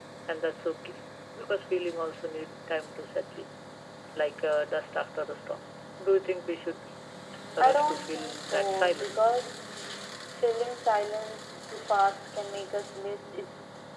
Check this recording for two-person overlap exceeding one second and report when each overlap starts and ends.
7.7-9.4

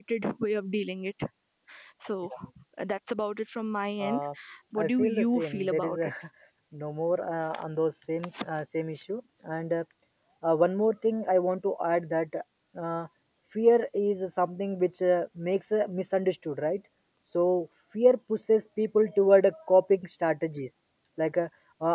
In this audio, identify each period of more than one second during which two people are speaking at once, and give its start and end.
4.8-6.1

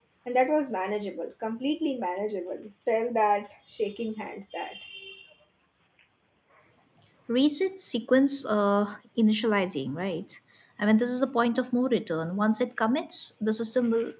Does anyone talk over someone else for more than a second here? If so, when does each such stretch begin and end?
none

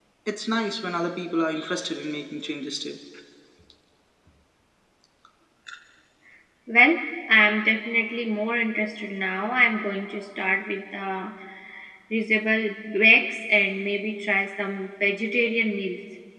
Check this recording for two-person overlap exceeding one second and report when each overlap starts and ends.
none

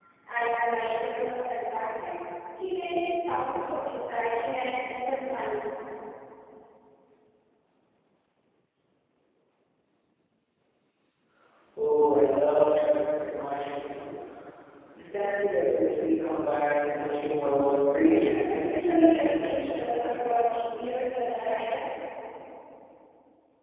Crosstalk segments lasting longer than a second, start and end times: 18.0-19.9

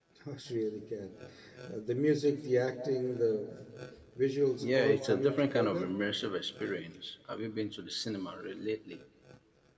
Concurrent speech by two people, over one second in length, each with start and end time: 4.6-5.9

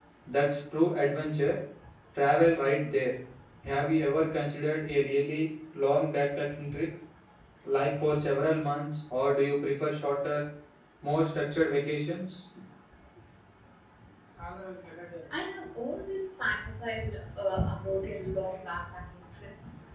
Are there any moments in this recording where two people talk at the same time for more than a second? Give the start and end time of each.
none

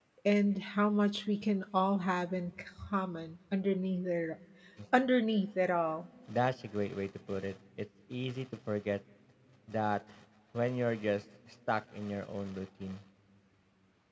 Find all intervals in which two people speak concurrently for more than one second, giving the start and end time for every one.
none

